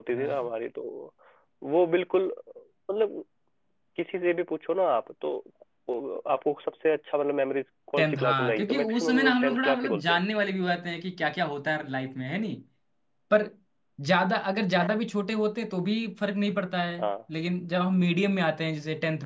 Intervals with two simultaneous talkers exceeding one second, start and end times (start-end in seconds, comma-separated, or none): 8.0-10.2